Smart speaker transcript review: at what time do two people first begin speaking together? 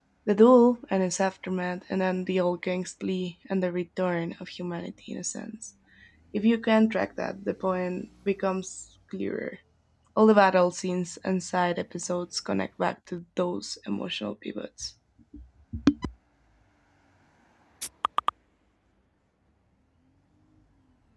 none

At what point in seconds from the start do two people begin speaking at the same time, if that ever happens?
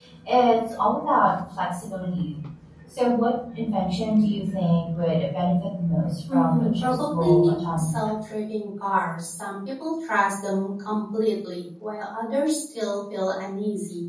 6 s

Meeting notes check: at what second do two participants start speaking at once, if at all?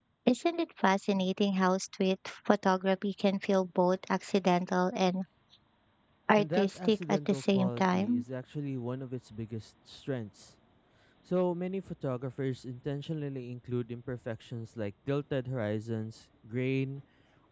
6 s

